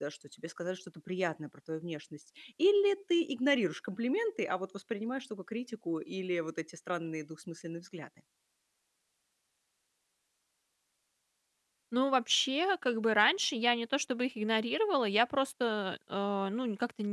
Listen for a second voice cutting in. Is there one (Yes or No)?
No